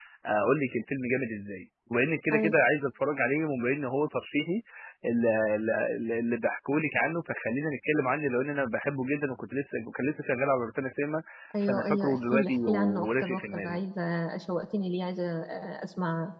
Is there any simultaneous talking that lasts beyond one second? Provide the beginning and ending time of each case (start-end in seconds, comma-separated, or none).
11.6-13.8